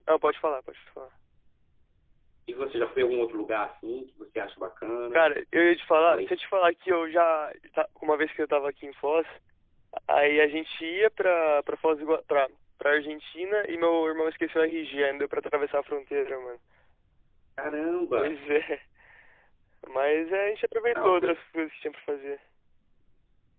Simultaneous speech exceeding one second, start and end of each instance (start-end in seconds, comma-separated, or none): none